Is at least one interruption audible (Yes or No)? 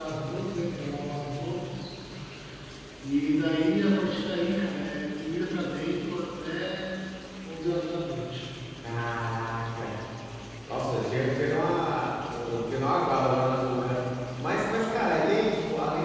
No